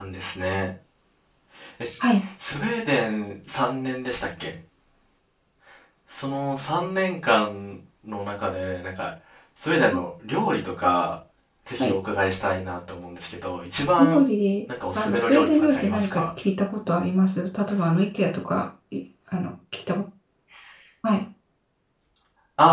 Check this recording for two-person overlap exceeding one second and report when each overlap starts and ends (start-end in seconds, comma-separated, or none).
14.9-16.2